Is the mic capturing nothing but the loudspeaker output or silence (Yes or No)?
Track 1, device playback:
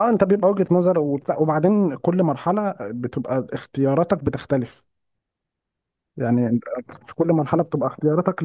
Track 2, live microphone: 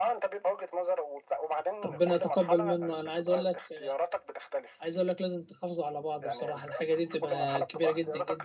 No